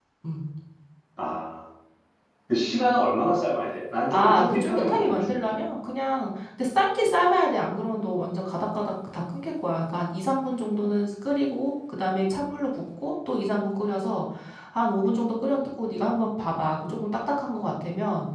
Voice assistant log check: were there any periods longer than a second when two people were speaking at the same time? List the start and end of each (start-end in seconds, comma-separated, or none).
4.1-5.6